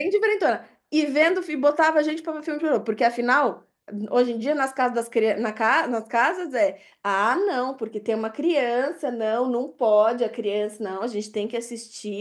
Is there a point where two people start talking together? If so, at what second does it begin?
none

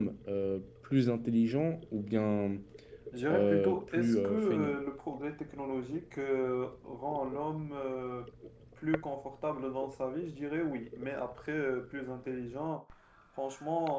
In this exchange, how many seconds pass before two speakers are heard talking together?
3.3 s

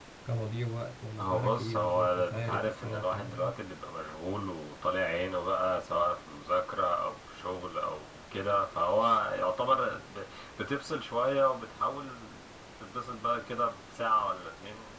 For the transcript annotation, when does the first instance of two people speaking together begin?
1.2 s

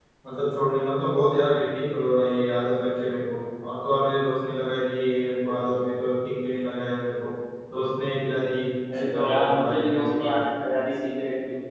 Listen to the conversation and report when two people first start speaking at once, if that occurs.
8.9 s

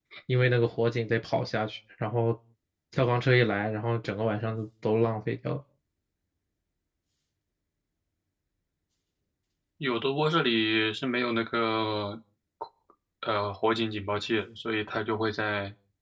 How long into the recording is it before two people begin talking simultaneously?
none

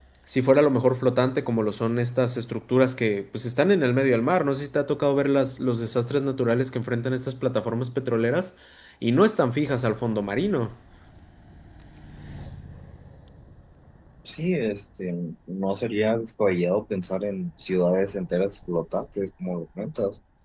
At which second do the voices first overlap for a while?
none

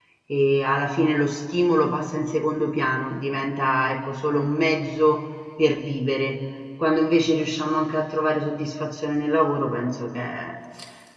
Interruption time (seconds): none

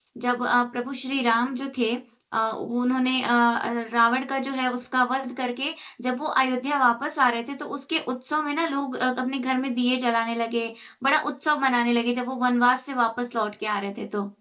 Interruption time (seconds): none

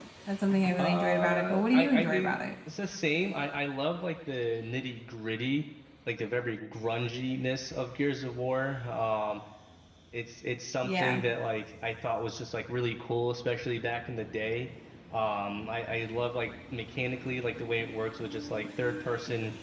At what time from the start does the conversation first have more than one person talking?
0.7 s

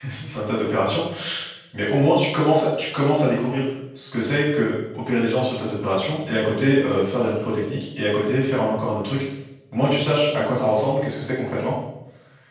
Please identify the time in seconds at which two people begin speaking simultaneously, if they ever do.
none

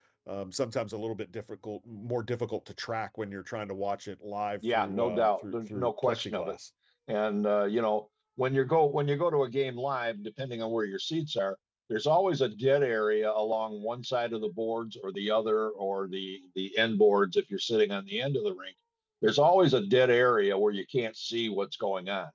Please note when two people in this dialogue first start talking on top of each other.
4.6 s

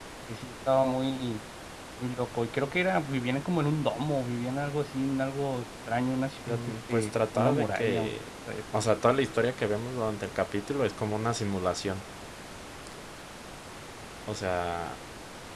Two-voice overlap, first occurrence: 6.5 s

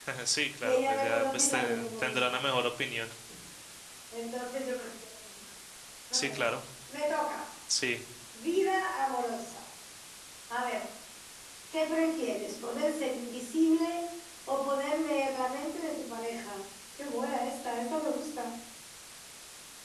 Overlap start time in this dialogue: 0.6 s

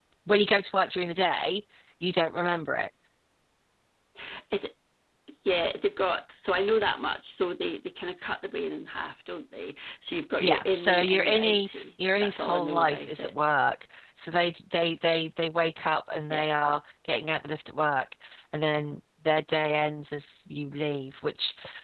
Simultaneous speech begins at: 10.4 s

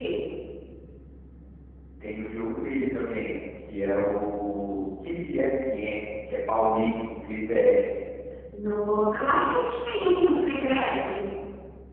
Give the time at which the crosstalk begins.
none

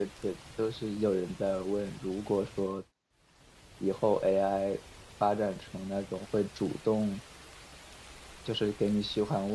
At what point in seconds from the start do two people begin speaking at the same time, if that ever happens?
none

